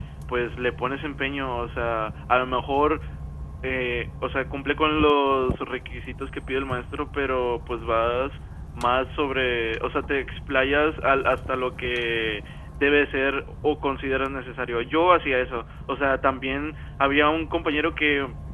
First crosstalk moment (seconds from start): none

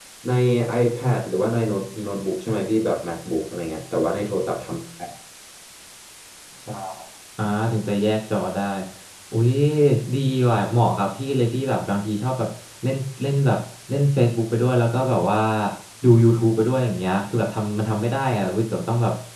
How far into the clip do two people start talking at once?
none

